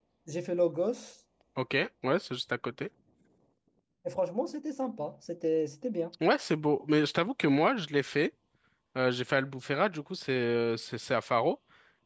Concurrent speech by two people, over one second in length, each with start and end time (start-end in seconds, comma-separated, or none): none